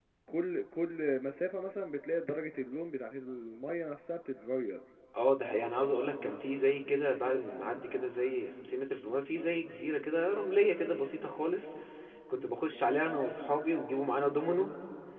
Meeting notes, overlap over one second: none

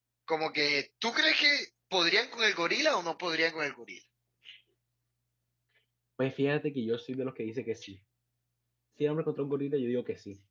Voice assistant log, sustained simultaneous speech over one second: none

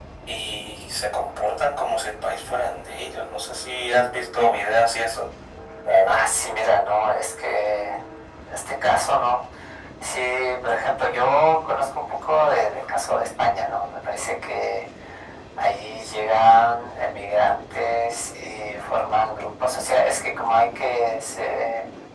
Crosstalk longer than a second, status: none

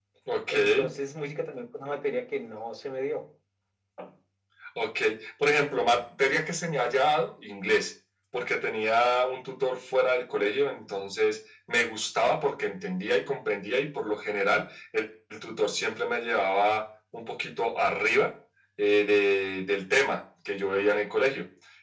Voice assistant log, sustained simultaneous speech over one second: none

